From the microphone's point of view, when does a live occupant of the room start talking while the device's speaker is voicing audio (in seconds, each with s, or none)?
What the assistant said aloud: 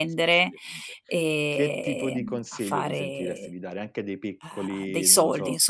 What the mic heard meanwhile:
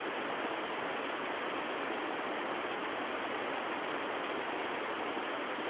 none